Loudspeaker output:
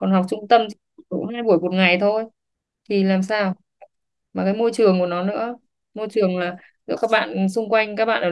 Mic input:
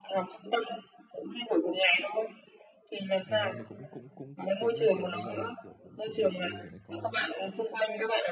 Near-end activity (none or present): present